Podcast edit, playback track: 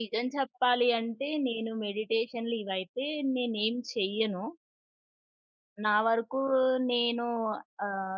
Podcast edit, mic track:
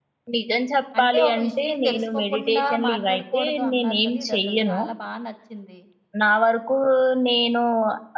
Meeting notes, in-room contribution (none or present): present